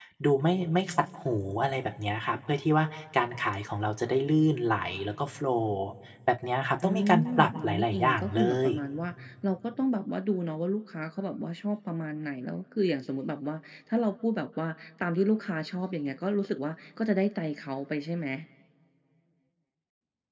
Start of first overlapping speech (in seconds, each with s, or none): 6.8 s